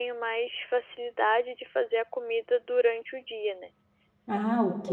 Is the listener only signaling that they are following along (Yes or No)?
No